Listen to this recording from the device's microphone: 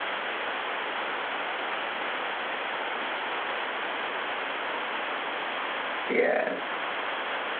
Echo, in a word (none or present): none